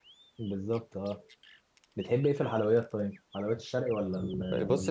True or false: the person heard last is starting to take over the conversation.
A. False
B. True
B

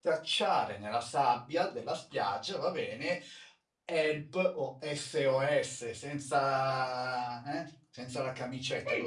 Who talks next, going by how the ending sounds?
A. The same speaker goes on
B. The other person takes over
B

